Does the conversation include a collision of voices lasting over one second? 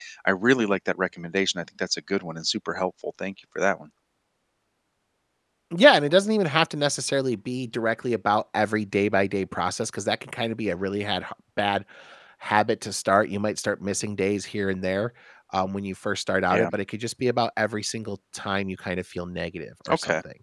No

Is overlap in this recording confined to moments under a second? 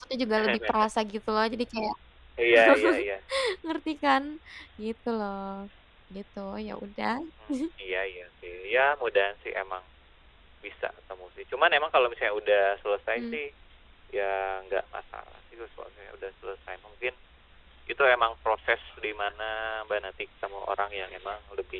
Yes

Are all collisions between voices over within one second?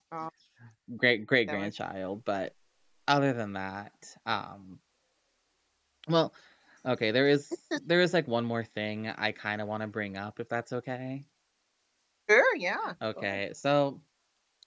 Yes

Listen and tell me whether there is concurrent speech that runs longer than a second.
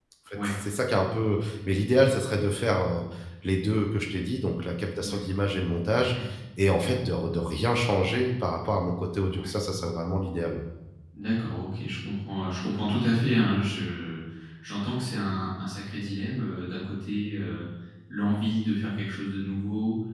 No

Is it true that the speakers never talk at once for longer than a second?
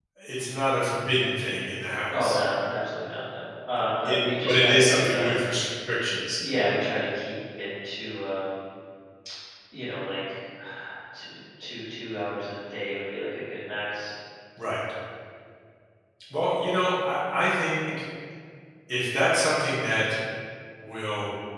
No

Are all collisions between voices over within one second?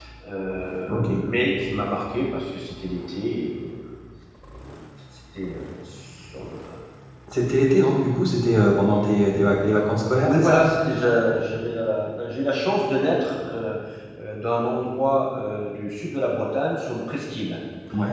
Yes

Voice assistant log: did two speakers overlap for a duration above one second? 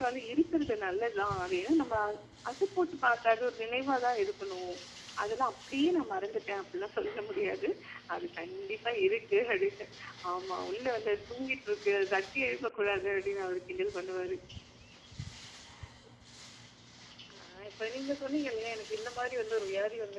No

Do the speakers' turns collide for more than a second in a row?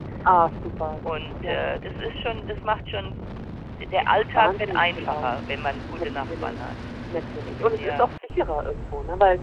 Yes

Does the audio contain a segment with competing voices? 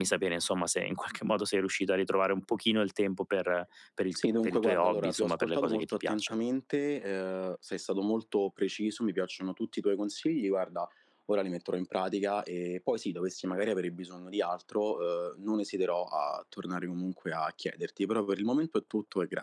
Yes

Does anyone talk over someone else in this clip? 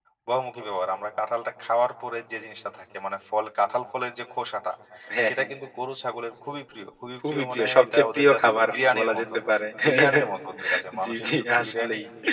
Yes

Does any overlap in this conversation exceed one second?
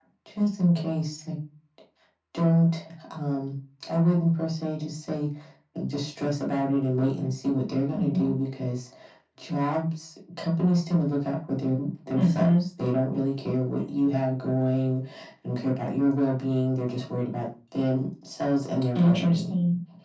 No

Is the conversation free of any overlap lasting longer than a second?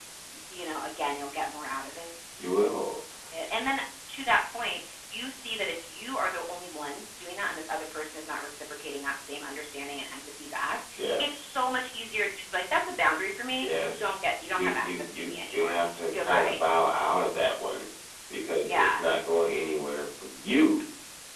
No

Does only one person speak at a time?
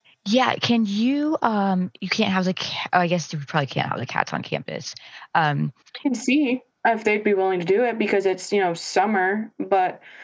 Yes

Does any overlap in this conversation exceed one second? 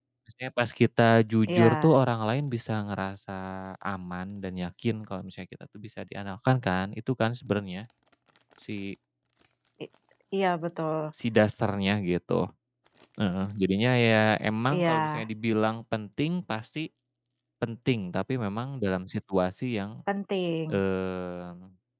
No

